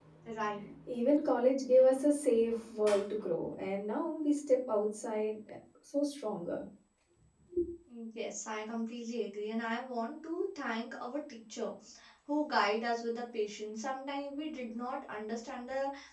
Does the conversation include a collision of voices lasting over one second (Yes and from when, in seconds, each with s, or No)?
No